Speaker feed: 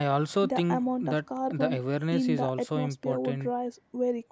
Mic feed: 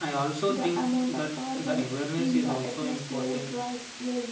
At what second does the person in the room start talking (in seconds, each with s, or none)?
none